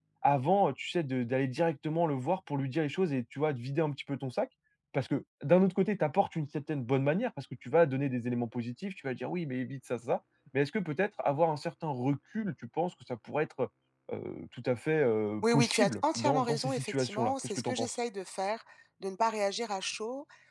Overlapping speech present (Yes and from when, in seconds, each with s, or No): Yes, from 15.4 s